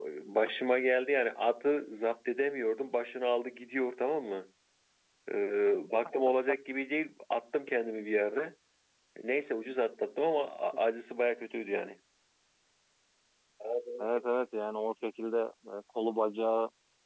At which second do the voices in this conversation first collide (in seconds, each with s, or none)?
none